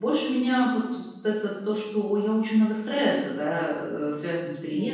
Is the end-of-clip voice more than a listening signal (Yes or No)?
No